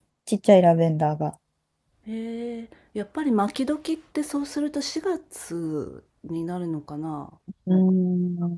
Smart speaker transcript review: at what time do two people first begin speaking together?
none

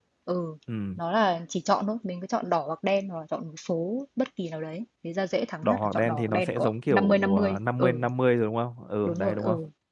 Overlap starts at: 5.6 s

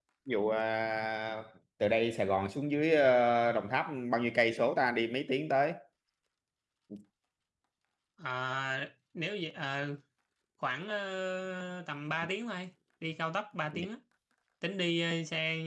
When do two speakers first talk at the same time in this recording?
none

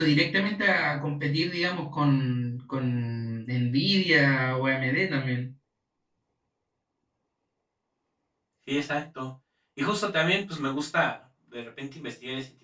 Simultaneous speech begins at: none

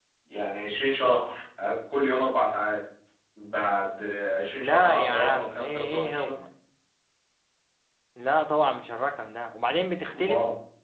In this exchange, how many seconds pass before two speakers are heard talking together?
4.6 s

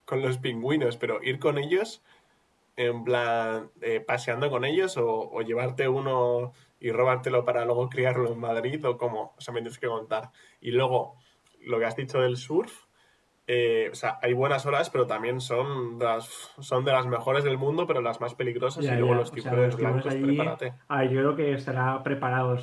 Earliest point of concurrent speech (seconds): 18.8 s

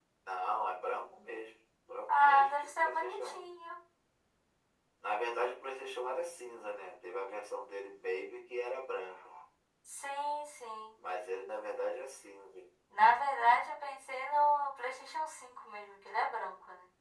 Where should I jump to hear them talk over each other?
2.1 s

